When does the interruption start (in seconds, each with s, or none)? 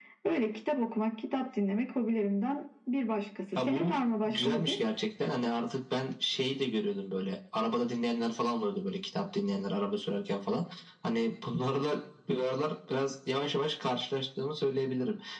3.6 s